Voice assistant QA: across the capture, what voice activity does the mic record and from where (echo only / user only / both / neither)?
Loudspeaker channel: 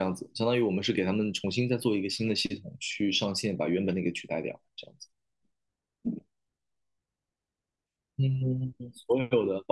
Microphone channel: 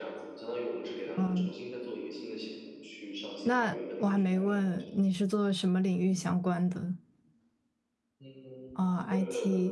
both